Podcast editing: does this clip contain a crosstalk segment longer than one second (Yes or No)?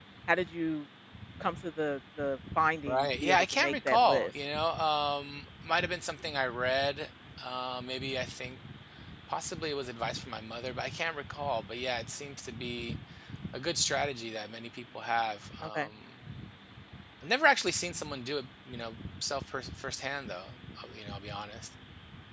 Yes